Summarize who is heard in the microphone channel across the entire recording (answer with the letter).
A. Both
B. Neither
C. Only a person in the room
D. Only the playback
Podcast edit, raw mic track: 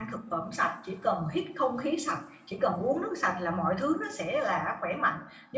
C